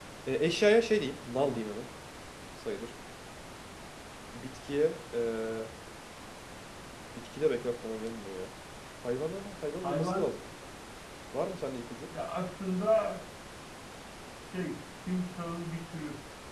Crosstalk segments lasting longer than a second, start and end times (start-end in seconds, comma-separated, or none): none